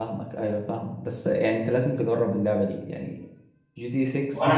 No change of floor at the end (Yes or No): No